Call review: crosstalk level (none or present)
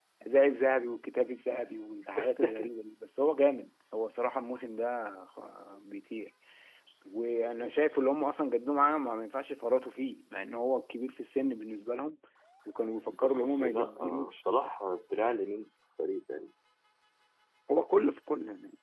present